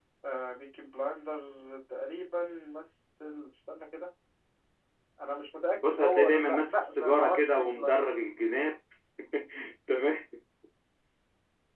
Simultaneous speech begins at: 5.8 s

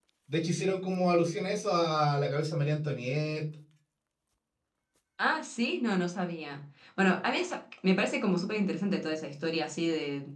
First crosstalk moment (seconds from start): none

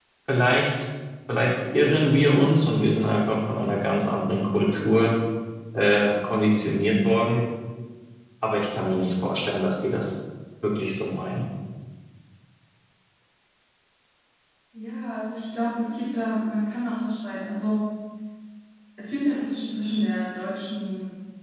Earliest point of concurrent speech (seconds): none

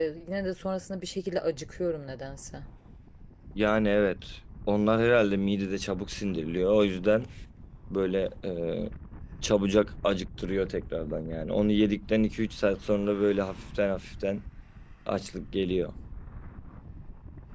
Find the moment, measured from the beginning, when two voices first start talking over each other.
none

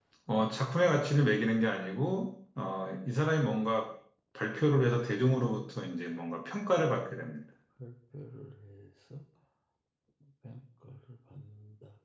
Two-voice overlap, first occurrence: none

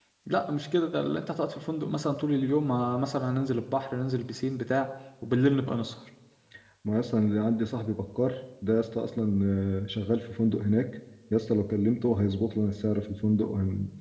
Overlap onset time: none

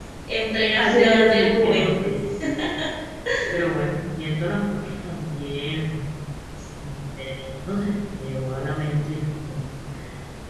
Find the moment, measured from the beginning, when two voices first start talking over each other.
0.8 s

